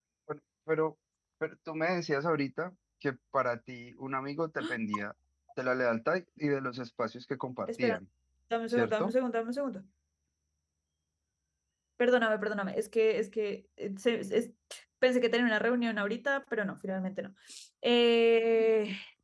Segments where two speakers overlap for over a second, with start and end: none

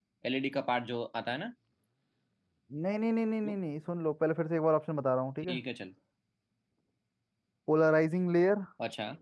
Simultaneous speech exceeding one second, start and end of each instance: none

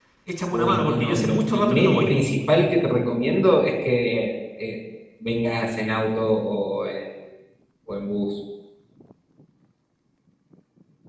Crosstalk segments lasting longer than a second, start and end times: 0.5-2.1

